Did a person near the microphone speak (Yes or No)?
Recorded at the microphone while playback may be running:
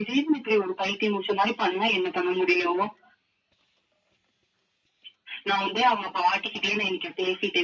No